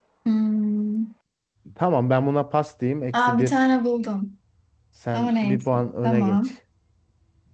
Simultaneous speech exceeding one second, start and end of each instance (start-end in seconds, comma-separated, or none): 5.1-6.4